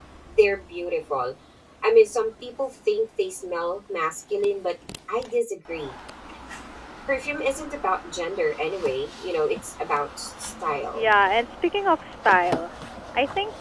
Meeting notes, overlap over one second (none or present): none